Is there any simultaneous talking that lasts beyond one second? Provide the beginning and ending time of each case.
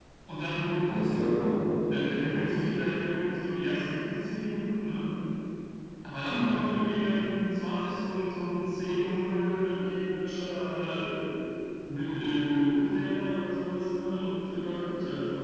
none

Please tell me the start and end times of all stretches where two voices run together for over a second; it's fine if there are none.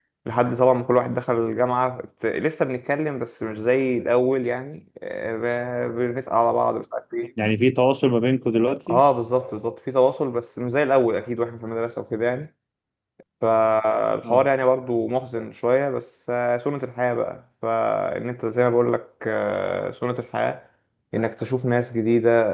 none

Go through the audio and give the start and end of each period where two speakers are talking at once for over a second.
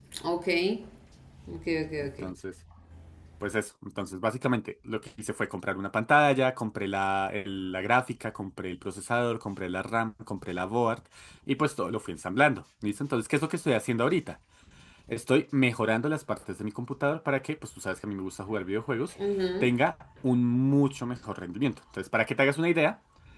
none

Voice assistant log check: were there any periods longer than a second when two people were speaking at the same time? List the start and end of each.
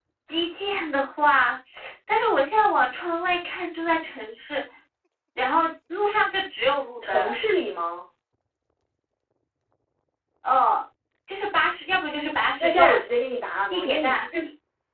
none

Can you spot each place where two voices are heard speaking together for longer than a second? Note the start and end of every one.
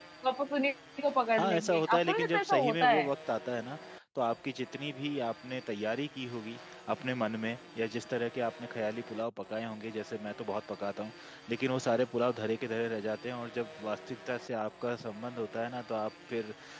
1.4-3.1

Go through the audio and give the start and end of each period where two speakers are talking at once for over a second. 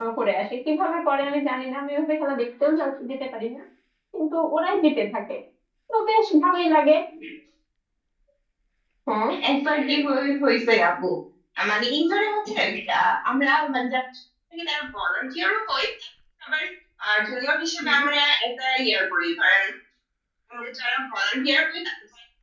none

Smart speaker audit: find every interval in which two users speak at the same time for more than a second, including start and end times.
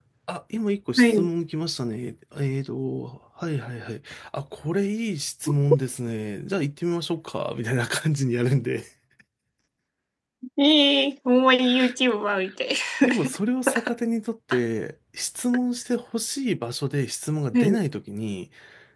none

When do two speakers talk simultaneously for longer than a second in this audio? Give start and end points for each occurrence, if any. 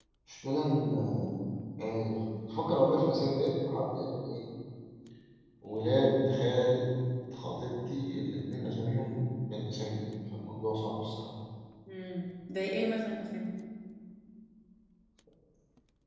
none

